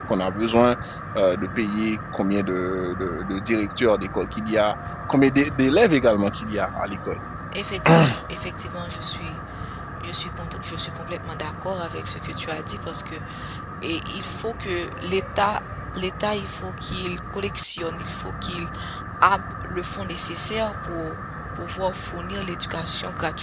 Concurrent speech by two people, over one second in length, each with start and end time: none

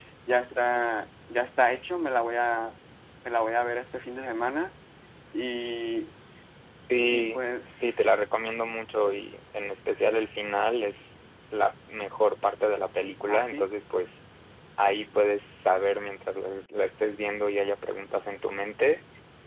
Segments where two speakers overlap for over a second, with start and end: none

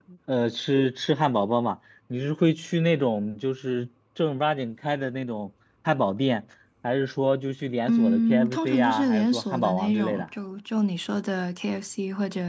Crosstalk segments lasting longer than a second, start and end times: 7.9-10.2

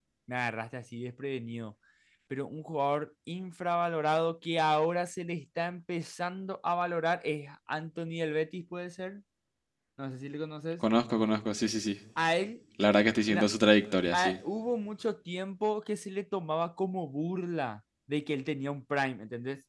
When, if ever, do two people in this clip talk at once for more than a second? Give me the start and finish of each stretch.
none

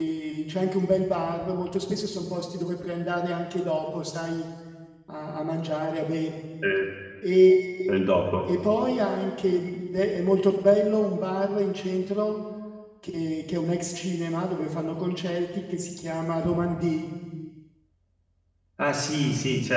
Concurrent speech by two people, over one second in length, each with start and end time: none

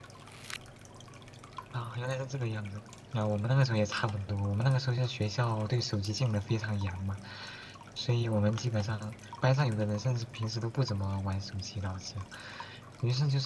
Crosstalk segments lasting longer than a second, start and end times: none

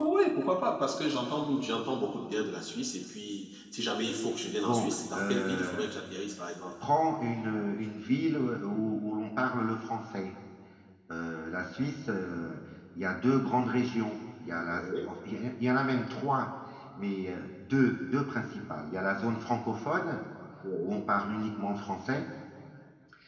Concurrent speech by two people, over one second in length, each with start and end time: 4.6-5.9

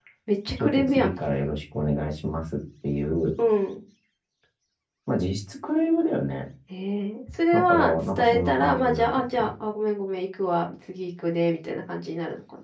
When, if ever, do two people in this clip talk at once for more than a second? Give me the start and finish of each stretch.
7.5-9.5

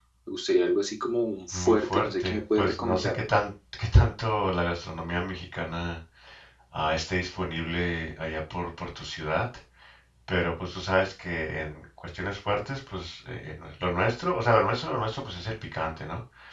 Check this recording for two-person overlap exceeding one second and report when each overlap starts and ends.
1.5-3.2

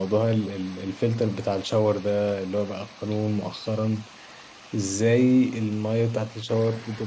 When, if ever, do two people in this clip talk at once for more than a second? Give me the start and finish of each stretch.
none

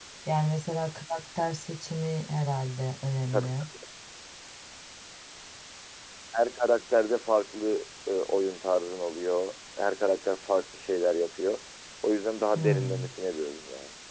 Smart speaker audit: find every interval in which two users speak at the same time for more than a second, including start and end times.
none

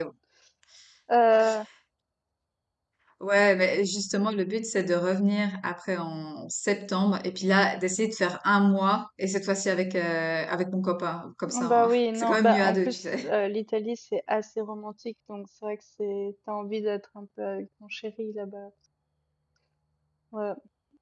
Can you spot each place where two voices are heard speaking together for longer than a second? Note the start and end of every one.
11.7-13.3

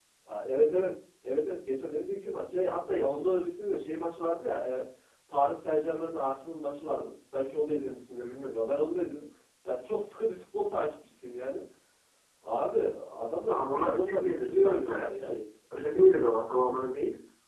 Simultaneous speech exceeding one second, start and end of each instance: 13.5-15.3

